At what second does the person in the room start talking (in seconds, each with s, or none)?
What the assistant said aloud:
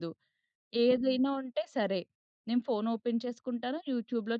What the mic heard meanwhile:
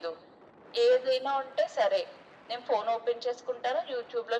none